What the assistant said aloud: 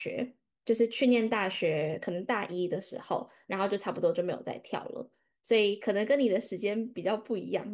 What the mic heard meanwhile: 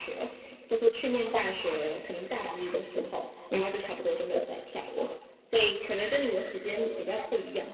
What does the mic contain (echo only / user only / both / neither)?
echo only